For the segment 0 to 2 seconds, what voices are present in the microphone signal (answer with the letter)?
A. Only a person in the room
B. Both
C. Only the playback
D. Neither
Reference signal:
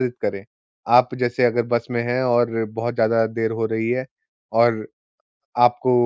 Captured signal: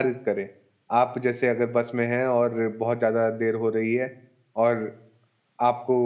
C